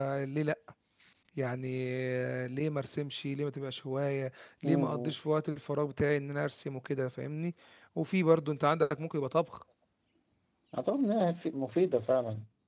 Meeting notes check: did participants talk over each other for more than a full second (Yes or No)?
No